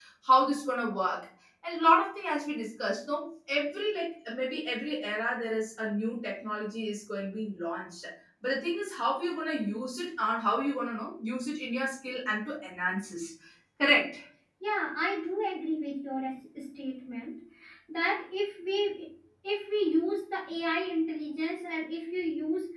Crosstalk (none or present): none